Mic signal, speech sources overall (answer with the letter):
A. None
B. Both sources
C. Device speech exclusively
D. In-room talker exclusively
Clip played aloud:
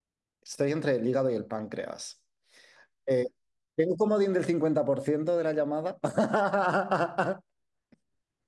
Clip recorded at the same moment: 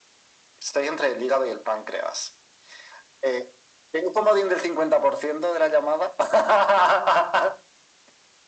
C